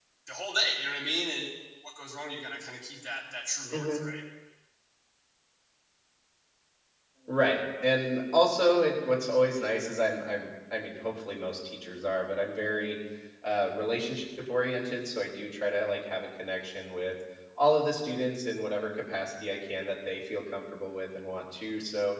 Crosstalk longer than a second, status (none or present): none